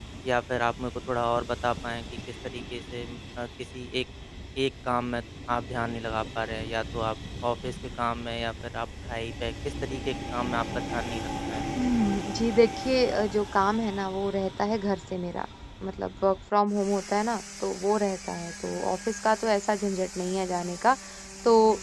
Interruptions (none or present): none